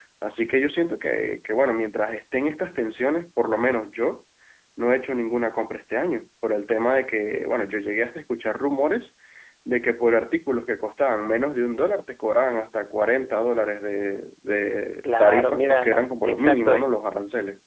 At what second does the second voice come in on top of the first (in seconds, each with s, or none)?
15.0 s